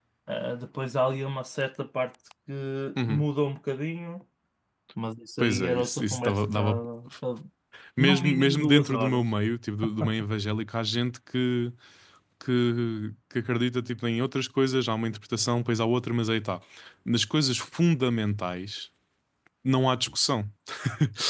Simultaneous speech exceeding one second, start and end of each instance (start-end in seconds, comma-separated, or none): 5.4-6.8, 8.0-9.2